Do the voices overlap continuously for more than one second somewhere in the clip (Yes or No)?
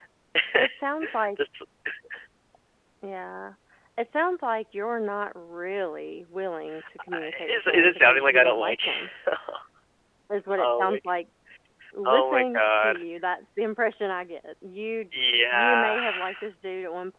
Yes